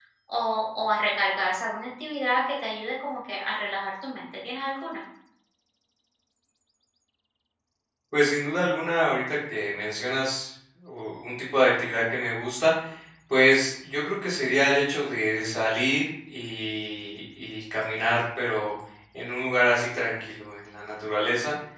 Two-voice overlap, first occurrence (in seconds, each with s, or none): none